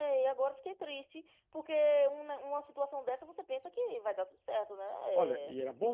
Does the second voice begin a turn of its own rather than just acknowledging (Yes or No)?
Yes